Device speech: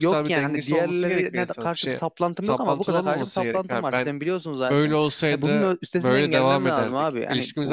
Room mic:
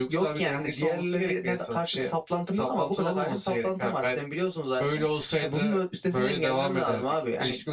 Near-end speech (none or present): none